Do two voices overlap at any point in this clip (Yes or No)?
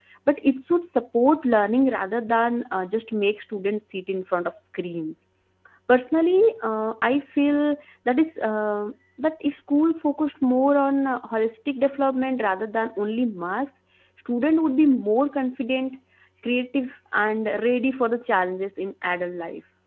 No